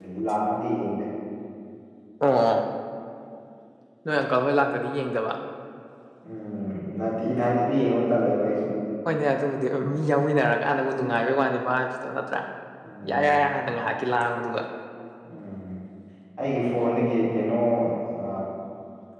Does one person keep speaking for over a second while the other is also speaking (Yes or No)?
No